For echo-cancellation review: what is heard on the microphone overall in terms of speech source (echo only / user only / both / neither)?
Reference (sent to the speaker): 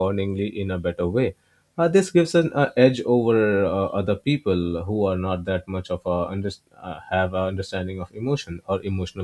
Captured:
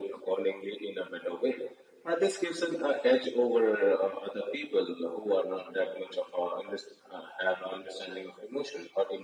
echo only